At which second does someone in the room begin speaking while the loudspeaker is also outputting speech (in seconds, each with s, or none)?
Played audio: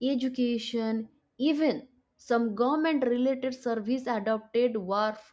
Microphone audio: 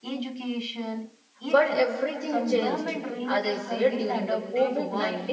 1.5 s